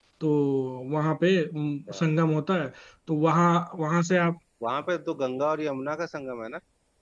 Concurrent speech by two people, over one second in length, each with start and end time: none

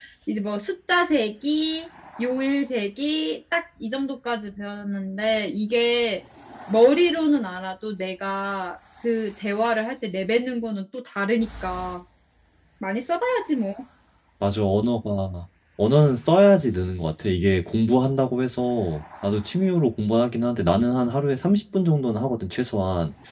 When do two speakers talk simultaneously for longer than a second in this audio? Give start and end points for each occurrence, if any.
none

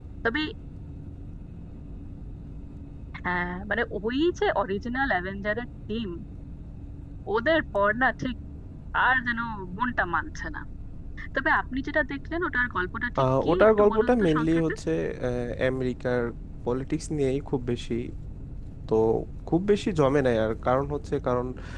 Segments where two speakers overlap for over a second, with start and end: 13.2-14.6

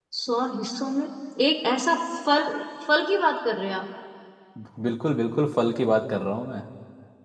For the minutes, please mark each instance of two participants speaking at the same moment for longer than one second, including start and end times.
none

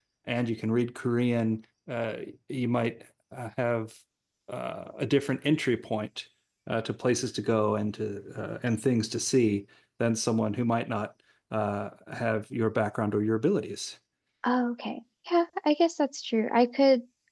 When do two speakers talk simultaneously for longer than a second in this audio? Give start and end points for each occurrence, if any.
none

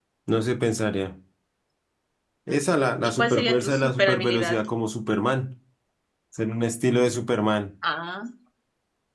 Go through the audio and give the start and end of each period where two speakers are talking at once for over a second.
3.0-4.6

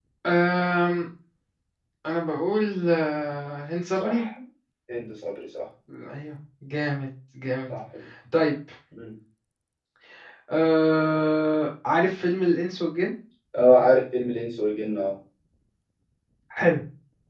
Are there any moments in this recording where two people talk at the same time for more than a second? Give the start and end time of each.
none

